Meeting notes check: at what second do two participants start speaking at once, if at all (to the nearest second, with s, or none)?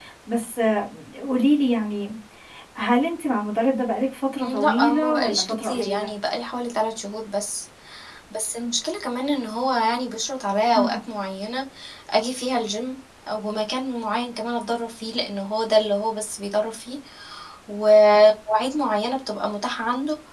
4 s